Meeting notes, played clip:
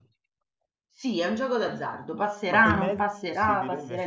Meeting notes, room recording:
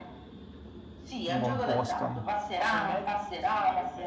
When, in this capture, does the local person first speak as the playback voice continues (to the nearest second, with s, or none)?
1 s